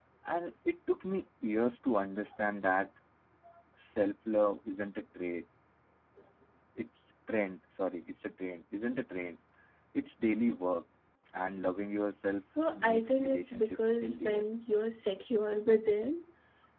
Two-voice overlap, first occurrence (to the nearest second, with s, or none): 13 s